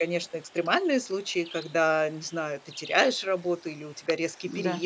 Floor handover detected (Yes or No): No